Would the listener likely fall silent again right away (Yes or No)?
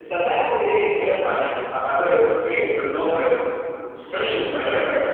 No